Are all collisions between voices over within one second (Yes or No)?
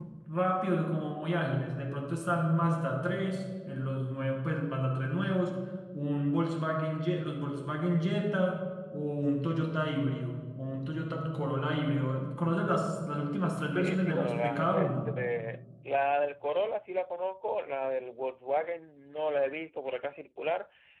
No